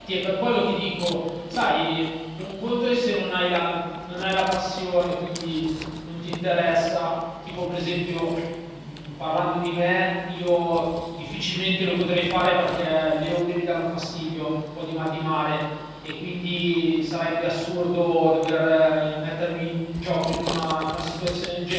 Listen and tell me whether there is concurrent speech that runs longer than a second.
No

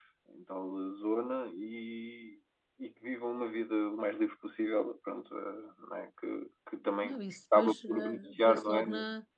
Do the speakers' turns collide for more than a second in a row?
Yes, from 7.0 s

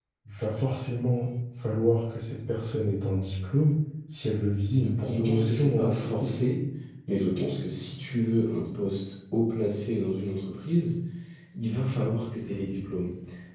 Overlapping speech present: Yes, from 5.1 s

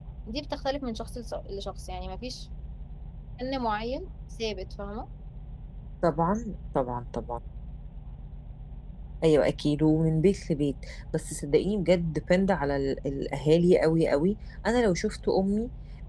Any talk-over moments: No

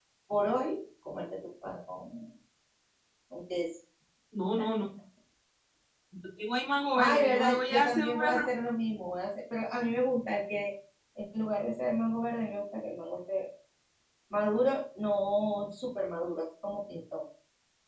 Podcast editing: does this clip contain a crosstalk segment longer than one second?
Yes, from 6.9 s

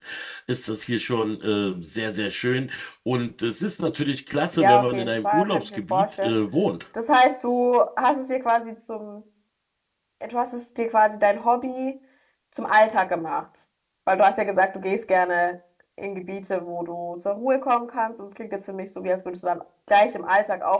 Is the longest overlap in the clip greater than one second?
Yes, from 4.5 s

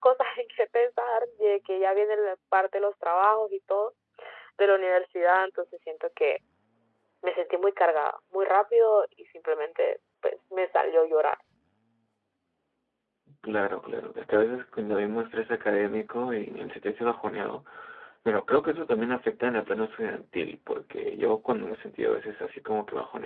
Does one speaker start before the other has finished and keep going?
No

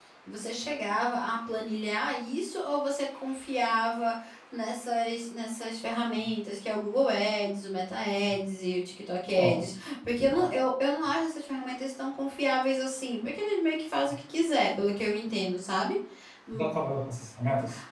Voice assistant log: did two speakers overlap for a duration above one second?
No

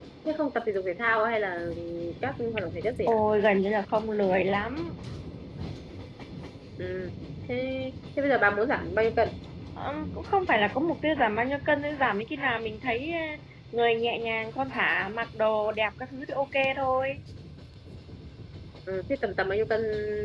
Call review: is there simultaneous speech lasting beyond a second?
No

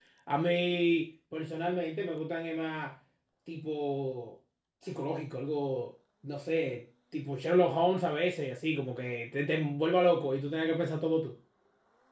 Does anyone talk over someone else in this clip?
No

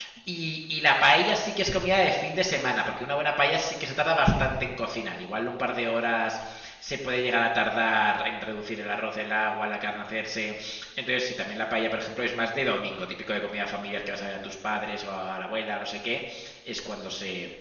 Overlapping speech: No

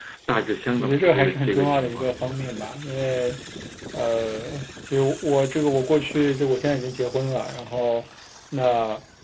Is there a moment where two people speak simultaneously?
Yes, from 0.8 s

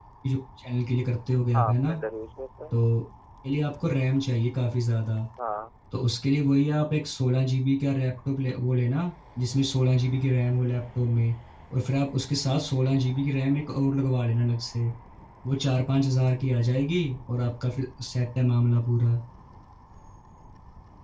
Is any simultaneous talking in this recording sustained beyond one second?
No

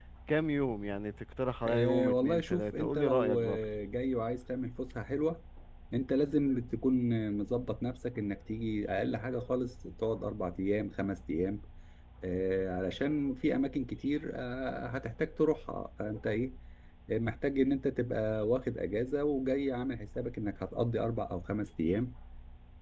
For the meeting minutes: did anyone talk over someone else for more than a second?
Yes, from 1.6 s

